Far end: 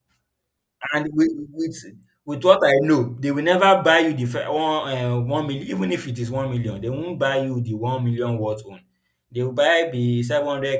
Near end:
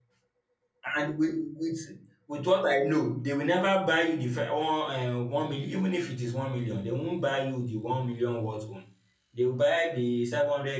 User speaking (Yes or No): No